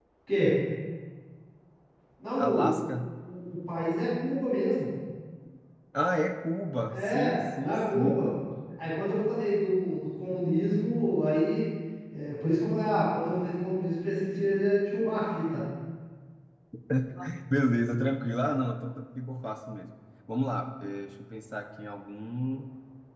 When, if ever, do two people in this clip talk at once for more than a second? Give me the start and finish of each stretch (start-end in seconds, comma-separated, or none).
6.9-8.2